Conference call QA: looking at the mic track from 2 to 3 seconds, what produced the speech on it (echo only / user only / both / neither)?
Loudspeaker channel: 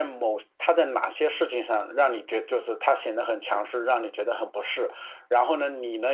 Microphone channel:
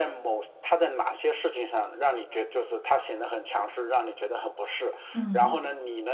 echo only